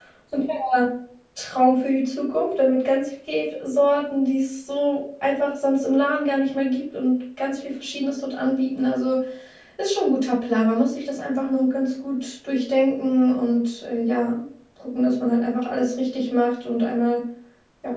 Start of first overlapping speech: none

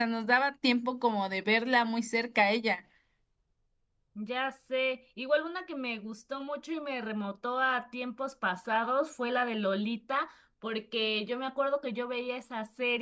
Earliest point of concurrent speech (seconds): none

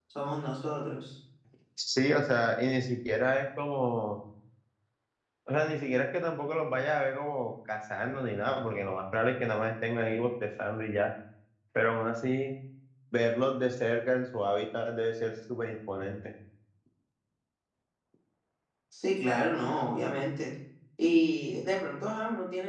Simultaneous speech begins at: none

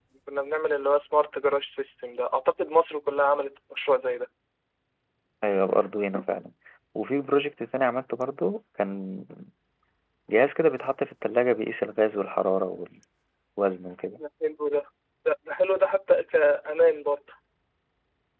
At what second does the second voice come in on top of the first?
none

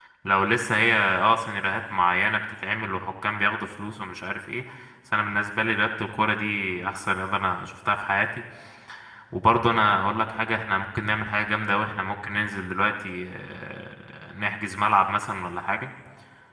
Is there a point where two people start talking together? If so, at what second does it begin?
none

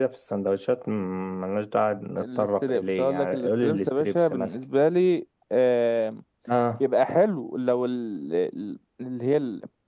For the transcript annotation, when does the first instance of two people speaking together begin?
2 s

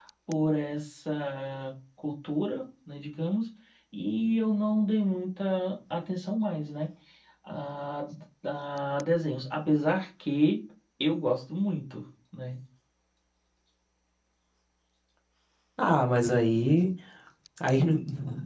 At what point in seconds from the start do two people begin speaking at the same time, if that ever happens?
none

